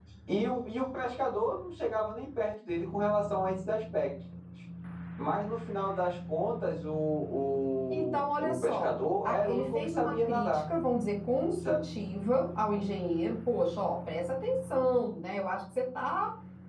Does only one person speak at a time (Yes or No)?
No